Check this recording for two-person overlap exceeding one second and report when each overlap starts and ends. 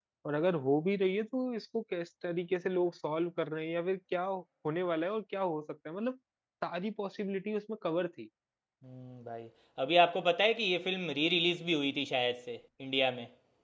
none

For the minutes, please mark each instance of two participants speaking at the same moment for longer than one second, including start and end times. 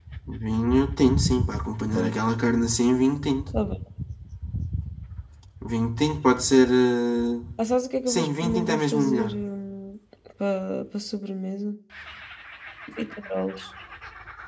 8.1-9.4

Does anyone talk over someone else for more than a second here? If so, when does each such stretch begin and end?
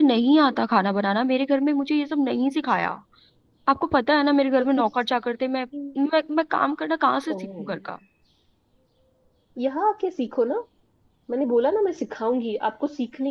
none

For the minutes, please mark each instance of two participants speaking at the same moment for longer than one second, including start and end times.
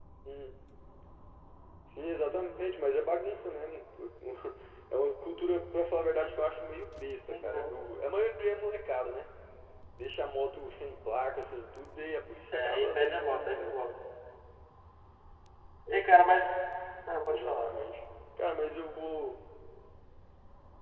12.5-13.8

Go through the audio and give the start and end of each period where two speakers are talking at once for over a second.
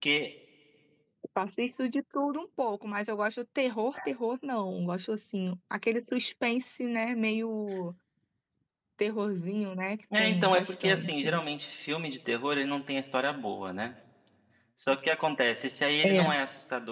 10.2-11.4

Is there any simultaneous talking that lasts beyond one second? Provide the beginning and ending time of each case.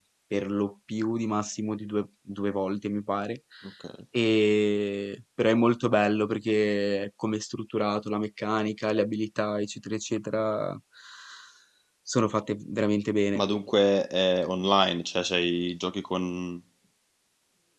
none

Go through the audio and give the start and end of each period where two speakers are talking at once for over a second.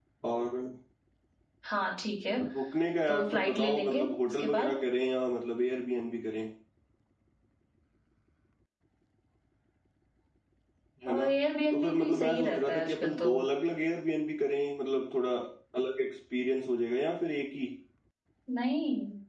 3.1-4.7, 11.7-13.4

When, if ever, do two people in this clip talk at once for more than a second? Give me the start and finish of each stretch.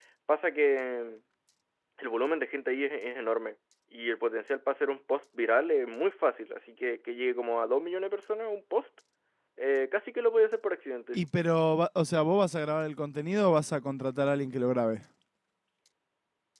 none

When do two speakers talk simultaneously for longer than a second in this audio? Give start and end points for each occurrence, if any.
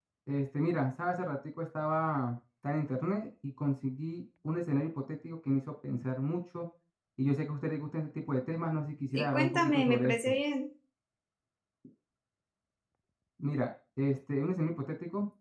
9.1-10.3

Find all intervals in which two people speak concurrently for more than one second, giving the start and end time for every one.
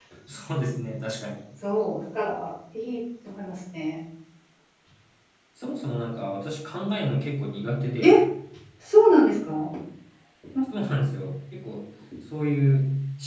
none

